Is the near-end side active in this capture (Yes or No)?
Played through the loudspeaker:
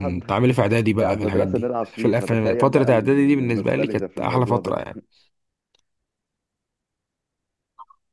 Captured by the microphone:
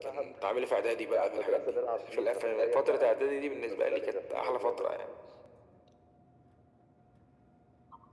No